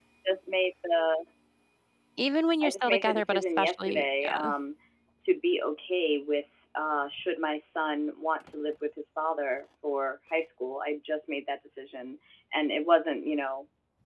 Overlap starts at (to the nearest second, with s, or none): 3 s